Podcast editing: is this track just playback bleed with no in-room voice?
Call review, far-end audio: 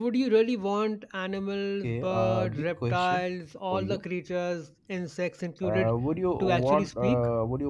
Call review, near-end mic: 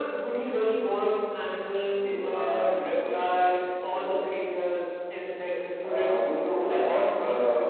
No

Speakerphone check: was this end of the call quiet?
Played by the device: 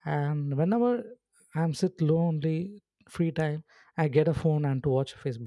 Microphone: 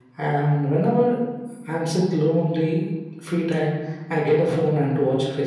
Yes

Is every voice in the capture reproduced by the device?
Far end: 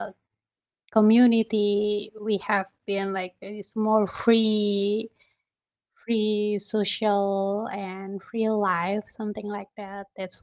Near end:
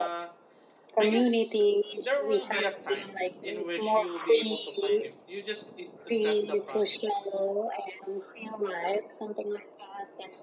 No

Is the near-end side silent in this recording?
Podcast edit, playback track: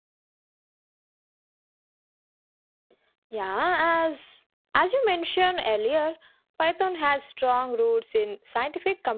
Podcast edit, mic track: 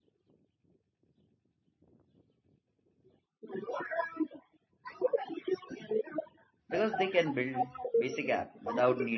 No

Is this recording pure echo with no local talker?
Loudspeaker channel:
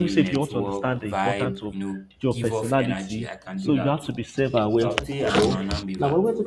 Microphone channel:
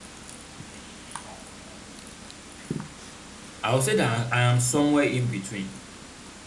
No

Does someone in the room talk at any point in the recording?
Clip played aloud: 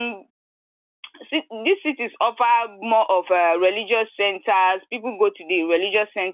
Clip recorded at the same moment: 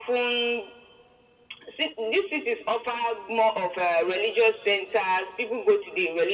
No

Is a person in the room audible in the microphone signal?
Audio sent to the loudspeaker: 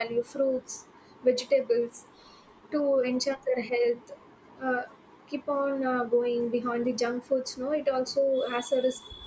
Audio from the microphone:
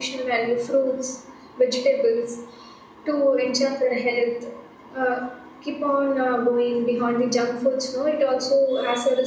No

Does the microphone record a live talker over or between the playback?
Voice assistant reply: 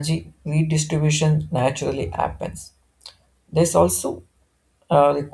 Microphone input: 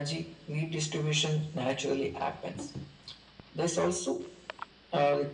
No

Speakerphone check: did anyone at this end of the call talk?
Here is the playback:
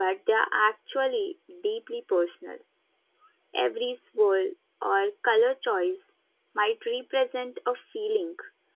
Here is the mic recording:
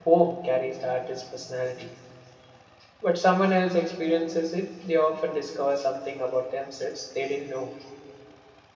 Yes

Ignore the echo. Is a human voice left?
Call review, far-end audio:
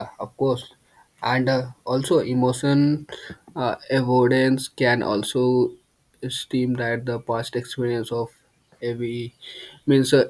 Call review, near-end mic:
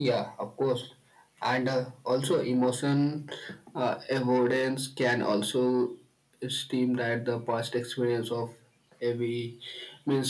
No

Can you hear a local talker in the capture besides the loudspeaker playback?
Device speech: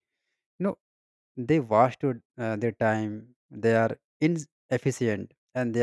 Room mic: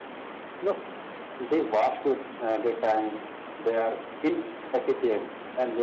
No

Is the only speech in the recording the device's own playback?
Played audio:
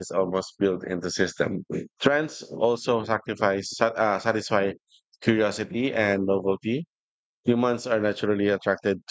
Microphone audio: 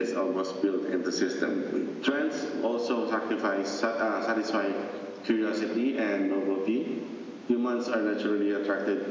Yes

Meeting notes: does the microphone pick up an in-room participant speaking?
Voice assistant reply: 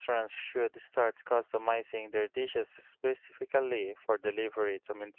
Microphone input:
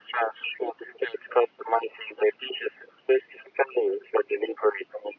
No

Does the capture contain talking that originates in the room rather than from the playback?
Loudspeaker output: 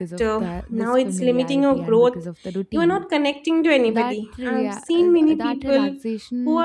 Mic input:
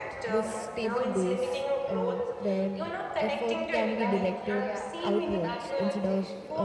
Yes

